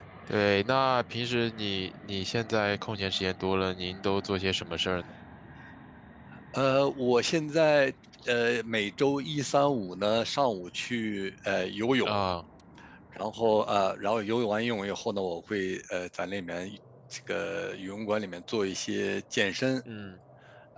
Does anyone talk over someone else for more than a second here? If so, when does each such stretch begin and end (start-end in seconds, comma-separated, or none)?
none